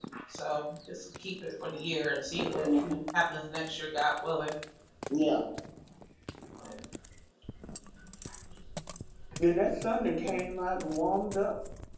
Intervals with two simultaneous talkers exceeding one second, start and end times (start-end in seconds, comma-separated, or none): none